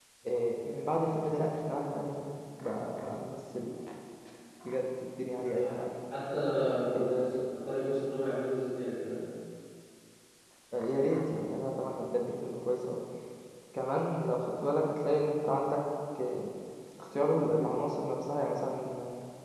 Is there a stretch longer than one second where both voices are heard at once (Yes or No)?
No